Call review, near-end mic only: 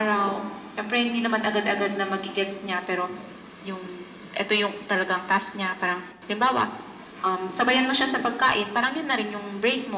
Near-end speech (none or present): none